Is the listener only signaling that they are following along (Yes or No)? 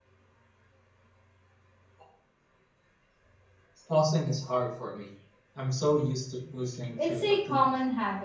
No